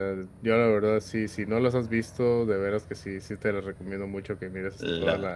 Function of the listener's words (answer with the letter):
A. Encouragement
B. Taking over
A